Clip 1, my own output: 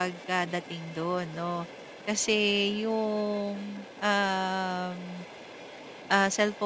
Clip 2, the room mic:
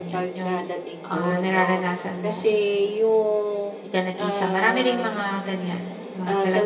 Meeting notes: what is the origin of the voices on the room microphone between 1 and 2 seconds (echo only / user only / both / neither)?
both